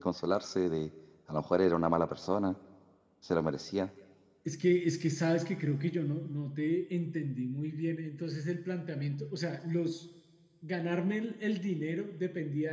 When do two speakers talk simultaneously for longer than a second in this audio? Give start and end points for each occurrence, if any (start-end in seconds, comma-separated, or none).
none